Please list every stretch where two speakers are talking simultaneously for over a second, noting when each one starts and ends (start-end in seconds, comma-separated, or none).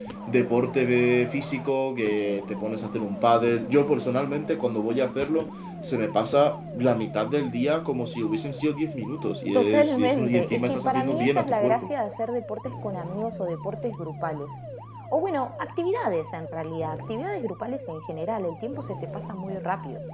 9.5-11.9